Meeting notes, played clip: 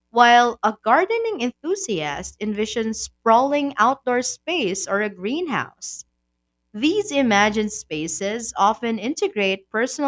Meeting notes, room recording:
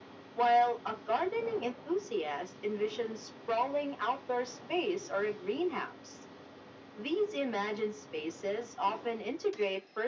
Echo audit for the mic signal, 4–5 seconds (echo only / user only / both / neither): echo only